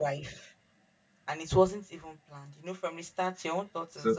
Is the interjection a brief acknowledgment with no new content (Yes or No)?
No